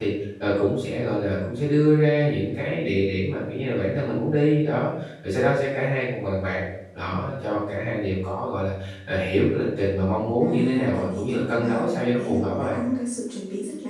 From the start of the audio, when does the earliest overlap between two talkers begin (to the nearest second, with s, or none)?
10 s